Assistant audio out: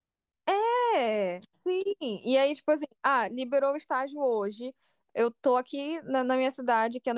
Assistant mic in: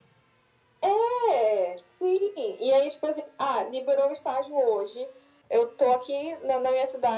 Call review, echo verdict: present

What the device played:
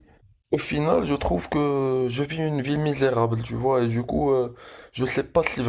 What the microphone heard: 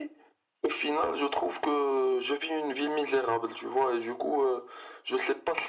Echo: present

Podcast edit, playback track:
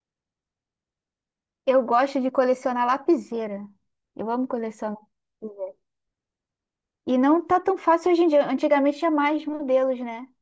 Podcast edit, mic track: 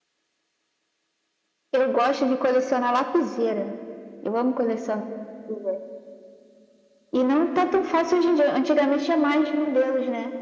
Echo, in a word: present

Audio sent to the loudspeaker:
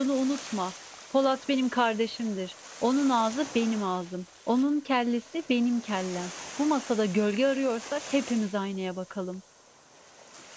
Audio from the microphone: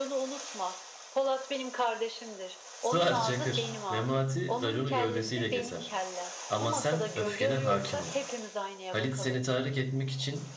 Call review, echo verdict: present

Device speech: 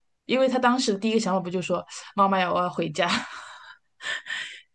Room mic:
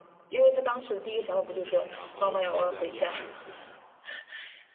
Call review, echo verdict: present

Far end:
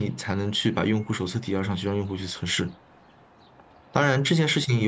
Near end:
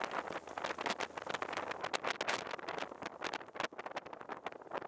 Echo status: none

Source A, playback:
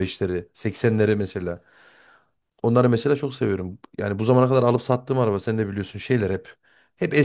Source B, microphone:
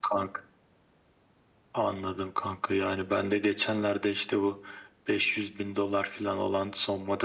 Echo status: none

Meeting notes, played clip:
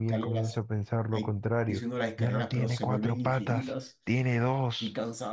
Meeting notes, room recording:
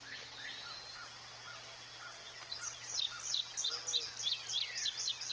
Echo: none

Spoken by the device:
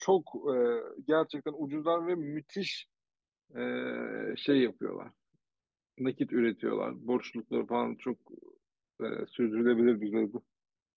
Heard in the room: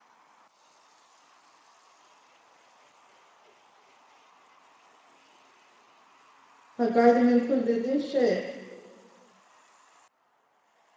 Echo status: none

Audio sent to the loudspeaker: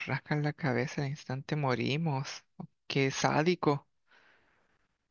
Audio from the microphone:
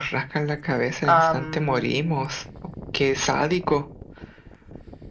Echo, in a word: present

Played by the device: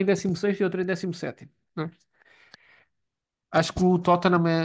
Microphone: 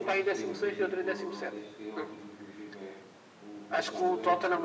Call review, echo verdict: present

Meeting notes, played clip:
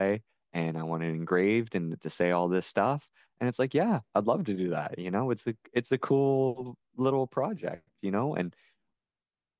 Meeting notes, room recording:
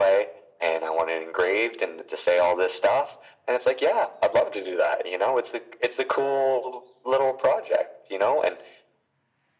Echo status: present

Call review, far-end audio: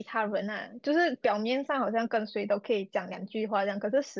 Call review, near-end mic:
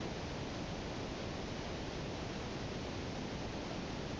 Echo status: none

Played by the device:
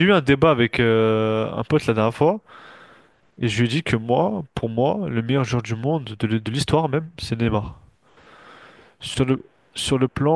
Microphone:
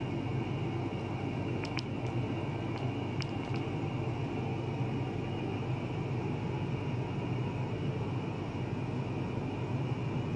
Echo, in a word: none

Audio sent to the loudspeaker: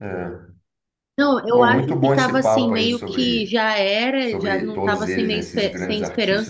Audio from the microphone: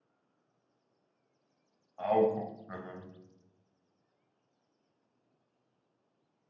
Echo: none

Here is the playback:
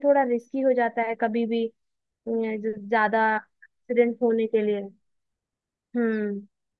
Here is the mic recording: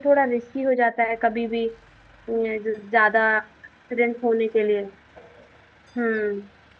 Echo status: present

